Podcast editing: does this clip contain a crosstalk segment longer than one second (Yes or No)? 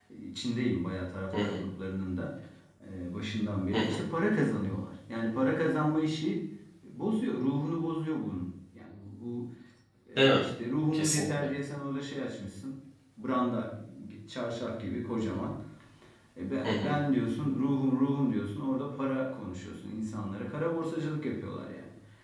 No